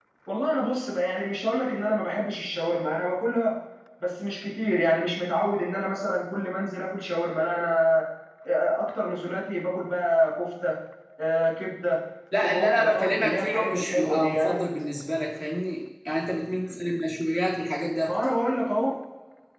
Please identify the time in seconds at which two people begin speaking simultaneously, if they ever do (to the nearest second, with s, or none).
12 s